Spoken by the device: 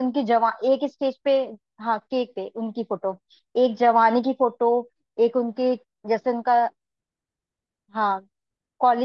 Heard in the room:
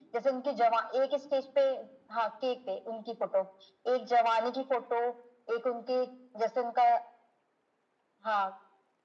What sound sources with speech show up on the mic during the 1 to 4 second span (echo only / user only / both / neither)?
echo only